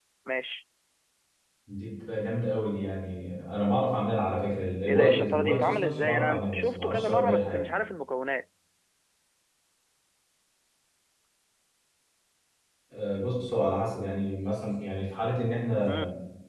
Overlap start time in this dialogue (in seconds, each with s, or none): 4.8 s